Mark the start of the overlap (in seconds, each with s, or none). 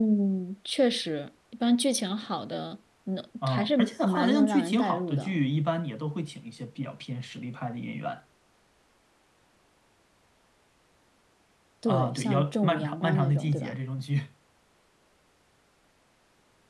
3.5 s